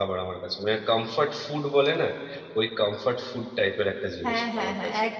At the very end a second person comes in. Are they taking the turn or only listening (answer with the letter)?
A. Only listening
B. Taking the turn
B